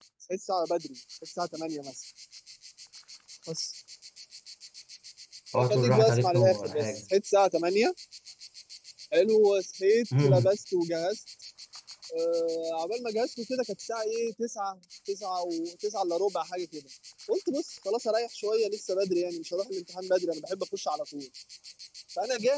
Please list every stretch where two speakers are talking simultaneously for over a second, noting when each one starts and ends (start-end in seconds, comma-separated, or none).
5.7-7.0